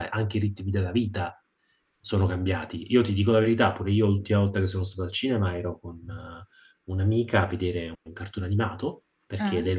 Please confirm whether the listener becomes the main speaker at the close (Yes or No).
No